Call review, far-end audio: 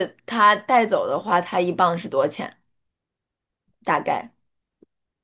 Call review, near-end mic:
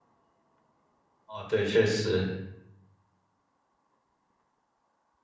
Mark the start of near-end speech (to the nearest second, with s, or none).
1 s